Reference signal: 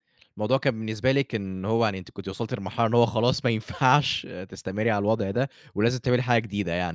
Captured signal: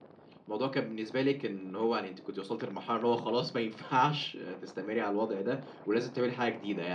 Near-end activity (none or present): none